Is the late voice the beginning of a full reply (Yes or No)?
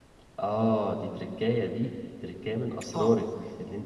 No